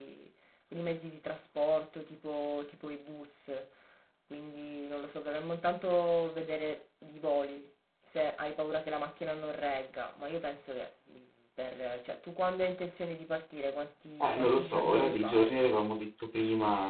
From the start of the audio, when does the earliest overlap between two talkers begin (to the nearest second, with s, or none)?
14 s